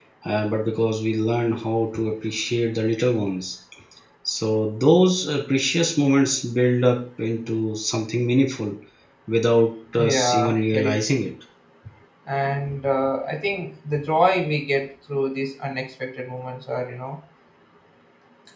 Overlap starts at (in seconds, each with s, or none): 10.0 s